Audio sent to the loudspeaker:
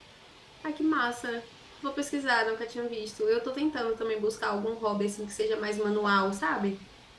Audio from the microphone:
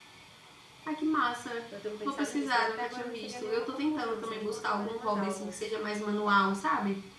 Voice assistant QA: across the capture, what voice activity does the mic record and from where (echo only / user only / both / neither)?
both